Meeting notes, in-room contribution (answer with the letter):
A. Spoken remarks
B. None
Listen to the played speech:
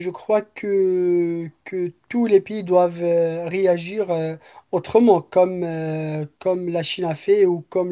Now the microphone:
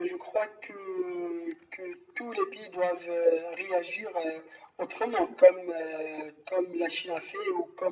B